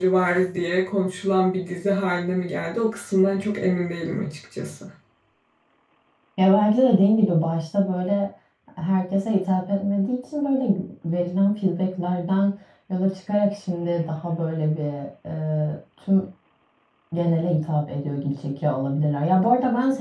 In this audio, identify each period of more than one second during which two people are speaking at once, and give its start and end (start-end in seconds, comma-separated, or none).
none